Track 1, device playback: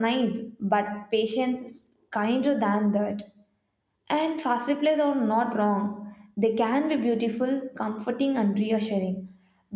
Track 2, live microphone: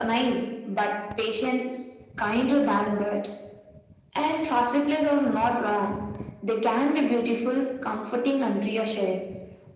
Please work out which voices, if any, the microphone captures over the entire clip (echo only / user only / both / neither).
echo only